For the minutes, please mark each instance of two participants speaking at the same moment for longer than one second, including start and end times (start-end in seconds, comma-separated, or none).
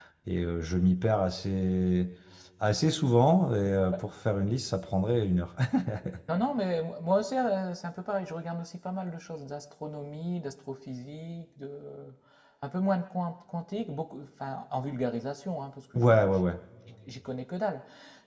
none